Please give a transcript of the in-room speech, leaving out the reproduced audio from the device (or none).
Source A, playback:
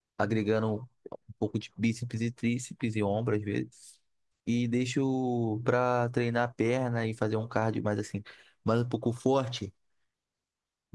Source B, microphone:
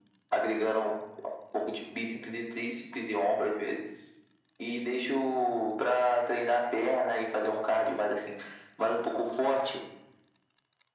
none